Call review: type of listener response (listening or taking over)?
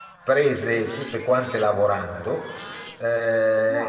listening